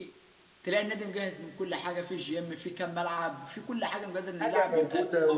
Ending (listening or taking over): taking over